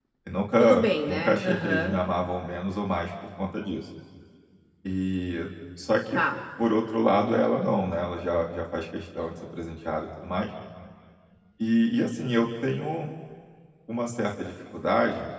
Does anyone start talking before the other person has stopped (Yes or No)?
Yes